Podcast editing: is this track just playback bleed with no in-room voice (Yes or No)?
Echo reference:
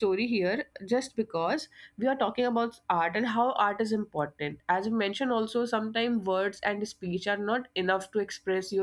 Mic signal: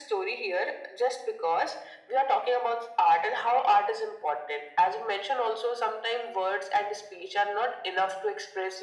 Yes